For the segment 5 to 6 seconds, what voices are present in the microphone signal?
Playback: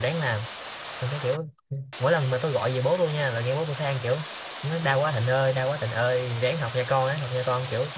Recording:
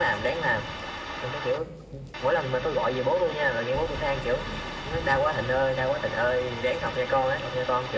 echo only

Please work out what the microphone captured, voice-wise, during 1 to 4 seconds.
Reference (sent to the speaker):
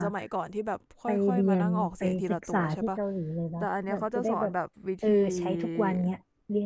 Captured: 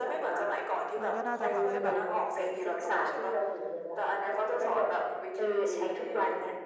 both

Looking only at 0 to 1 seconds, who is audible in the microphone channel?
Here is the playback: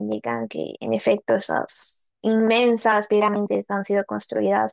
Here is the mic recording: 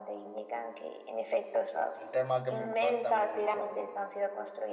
echo only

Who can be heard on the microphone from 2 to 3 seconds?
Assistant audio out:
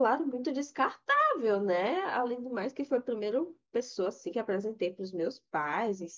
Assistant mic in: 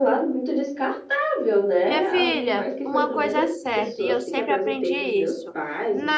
both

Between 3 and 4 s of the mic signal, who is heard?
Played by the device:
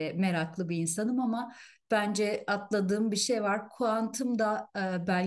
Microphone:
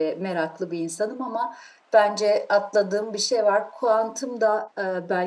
echo only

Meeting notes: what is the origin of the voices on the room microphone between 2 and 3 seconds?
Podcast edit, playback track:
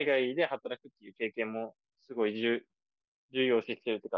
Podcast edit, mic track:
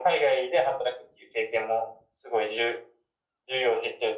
echo only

